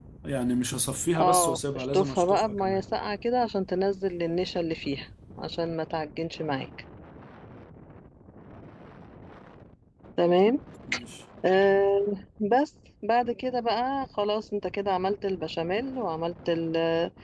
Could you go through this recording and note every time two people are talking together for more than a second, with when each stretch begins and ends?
1.2-2.8

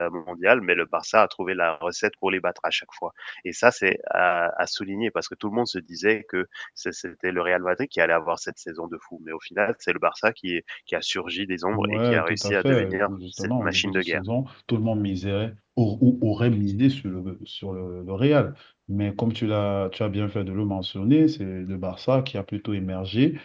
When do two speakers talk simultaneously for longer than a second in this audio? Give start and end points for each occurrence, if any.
11.7-14.2

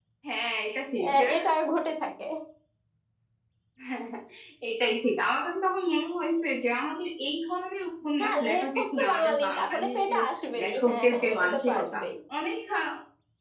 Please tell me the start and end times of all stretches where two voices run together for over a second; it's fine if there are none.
8.2-10.1, 10.6-12.0

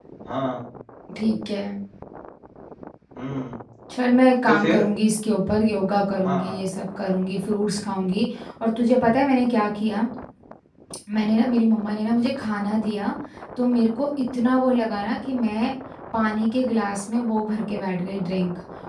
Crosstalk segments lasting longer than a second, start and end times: none

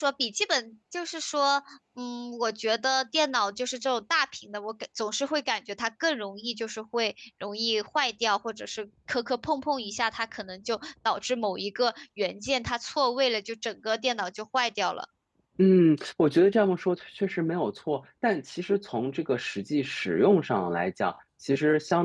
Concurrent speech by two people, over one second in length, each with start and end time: none

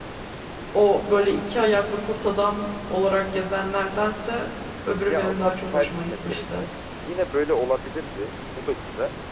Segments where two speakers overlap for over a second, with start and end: 5.1-6.6

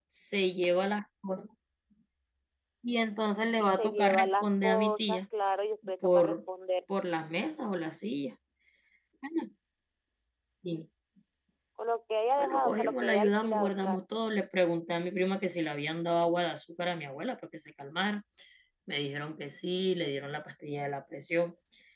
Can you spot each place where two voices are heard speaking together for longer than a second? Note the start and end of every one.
3.6-5.2, 12.4-14.0

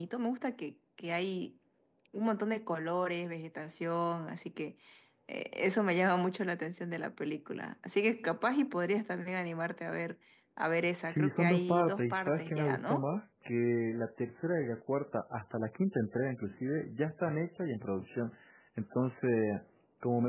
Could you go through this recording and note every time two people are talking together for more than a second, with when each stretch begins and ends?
11.0-13.1

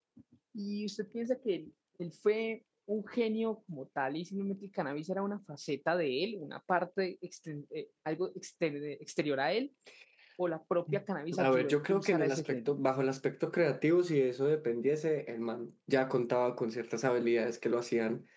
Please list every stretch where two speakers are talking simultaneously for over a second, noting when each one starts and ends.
11.4-12.8

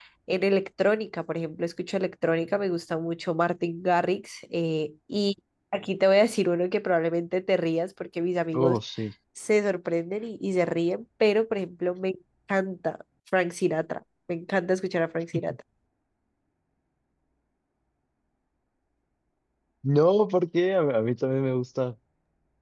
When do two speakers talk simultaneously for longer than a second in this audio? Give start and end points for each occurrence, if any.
none

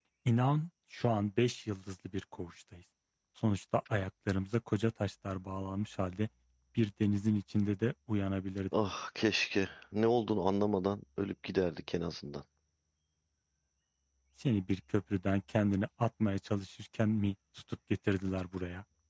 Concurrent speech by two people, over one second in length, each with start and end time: none

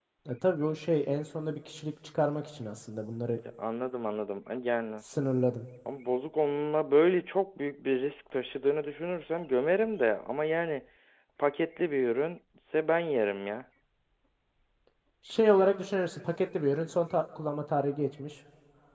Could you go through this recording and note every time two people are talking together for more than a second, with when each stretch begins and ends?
none

